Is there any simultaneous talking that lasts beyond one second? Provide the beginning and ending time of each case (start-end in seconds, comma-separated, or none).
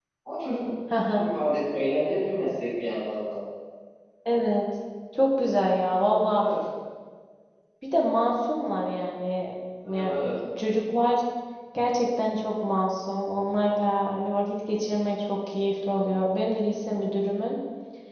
none